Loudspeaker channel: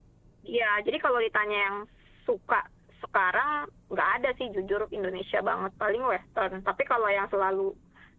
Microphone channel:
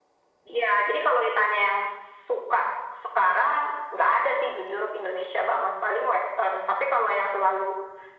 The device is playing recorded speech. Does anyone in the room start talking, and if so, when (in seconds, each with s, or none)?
none